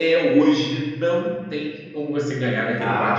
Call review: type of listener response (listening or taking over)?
taking over